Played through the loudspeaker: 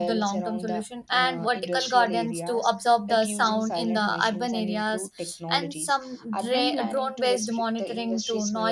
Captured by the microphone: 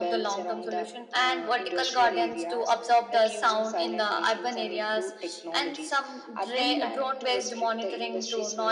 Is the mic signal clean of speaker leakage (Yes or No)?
No